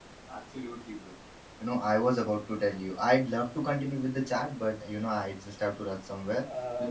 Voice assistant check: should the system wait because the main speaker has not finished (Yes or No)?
No